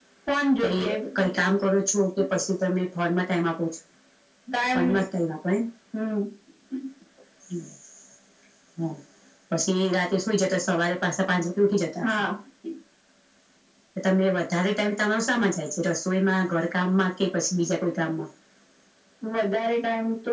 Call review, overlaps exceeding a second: none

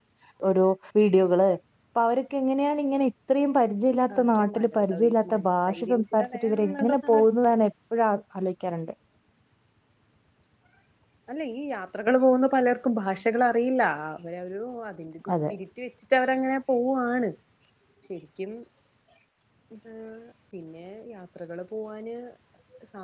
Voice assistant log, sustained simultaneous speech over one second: present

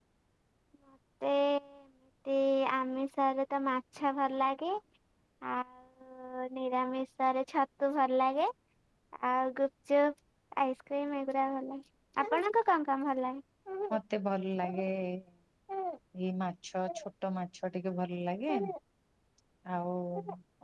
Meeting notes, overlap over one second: none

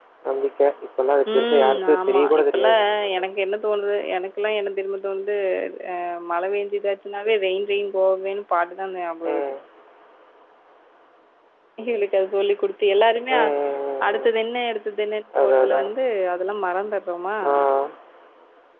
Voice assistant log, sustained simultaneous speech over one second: present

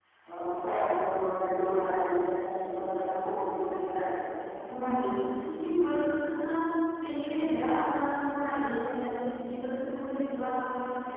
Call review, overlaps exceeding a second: none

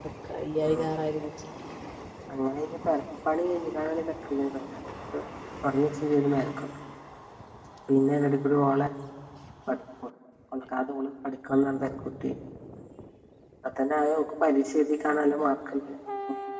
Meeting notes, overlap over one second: none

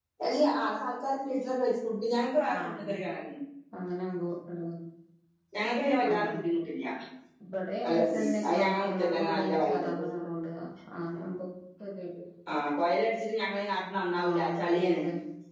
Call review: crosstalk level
present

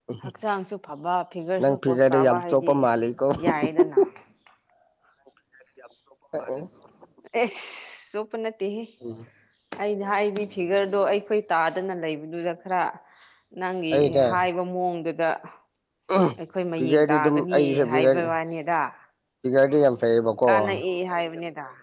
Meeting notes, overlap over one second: present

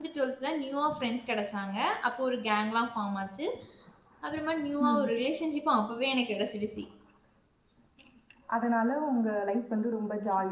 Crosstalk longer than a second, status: none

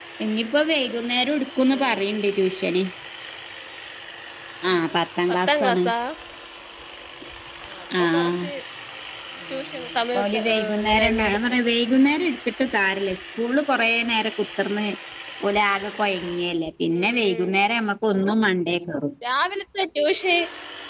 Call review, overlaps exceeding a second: present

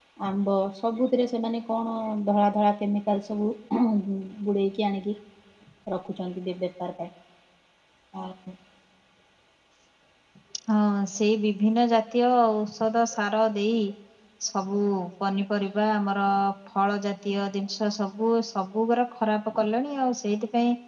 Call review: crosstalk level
none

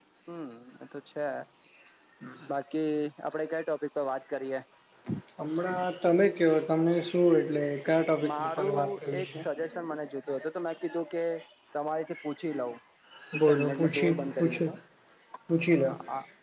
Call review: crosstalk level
present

